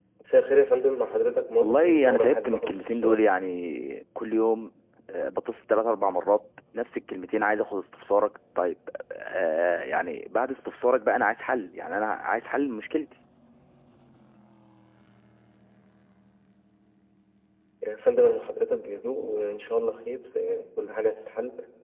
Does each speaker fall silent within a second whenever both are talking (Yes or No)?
No